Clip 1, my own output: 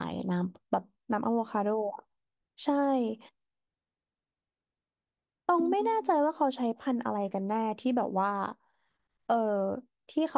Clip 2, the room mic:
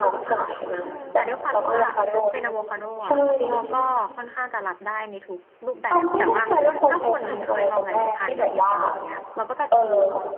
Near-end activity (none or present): present